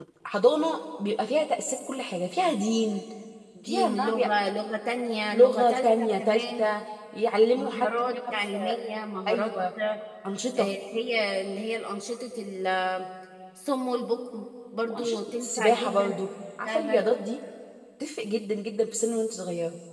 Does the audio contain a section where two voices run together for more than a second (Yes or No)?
Yes